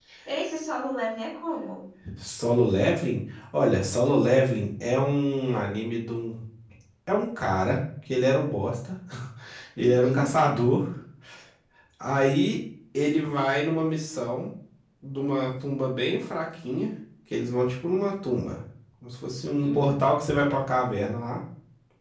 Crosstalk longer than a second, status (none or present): none